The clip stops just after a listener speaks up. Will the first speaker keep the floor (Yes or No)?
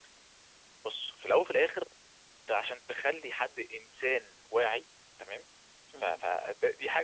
Yes